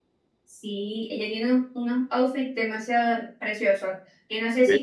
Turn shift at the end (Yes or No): No